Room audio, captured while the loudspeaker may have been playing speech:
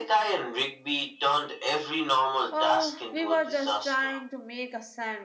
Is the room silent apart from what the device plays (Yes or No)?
No